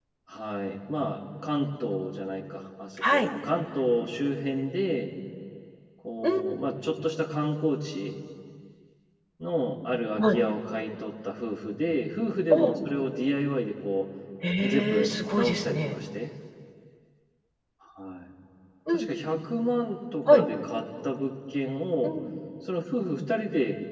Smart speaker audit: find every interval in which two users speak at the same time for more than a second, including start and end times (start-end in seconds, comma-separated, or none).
14.6-15.9